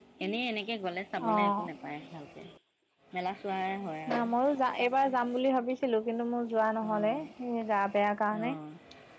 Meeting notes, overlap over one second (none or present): none